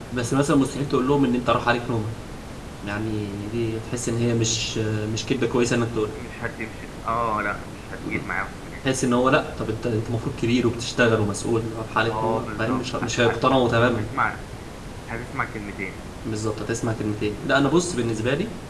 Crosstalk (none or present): present